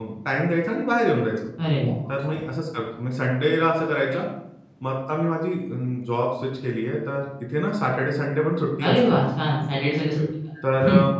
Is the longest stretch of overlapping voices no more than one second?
Yes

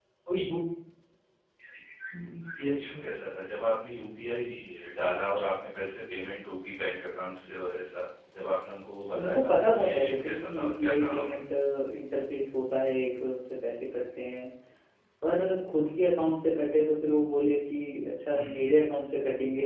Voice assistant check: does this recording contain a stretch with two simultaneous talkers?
Yes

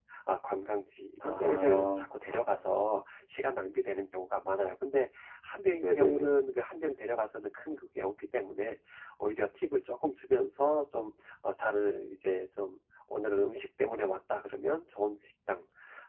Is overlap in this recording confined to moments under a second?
No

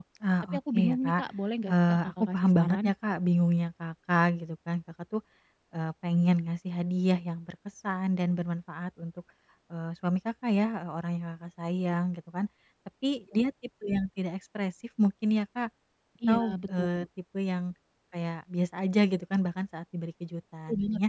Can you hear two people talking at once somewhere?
Yes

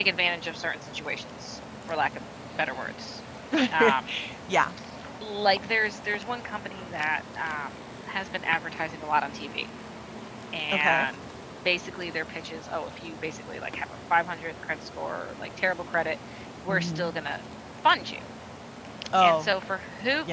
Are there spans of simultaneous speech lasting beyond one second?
No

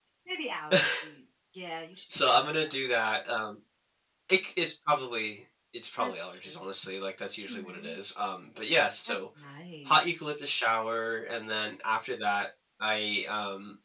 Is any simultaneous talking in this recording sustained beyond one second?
No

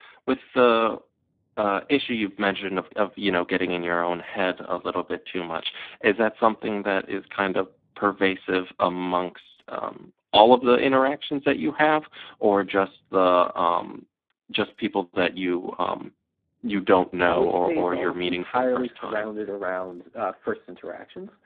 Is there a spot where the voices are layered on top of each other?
Yes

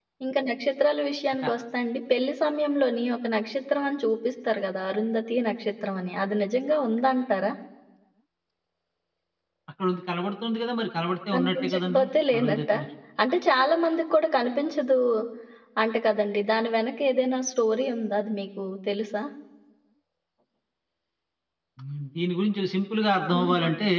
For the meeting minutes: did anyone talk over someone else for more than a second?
Yes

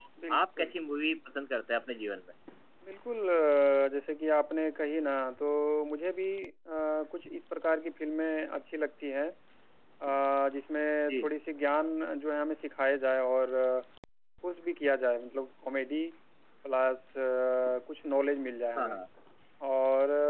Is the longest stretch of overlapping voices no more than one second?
Yes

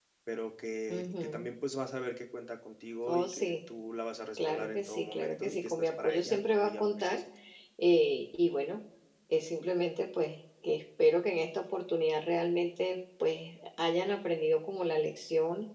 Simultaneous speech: Yes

